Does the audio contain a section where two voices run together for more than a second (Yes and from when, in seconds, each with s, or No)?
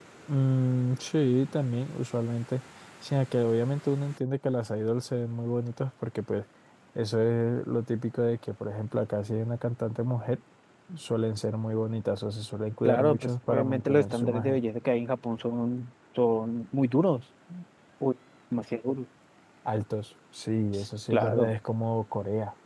Yes, from 12.8 s